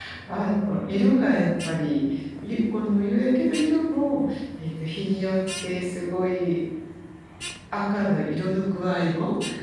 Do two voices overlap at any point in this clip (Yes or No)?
No